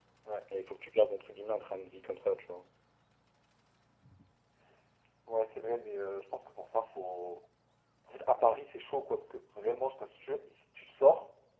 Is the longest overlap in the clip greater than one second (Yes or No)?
No